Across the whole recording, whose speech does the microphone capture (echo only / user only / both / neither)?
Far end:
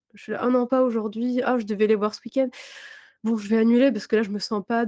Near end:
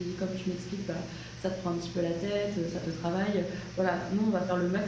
user only